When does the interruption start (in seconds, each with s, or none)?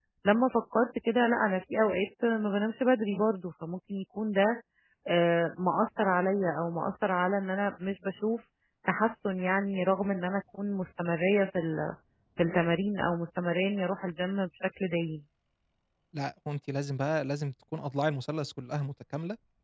none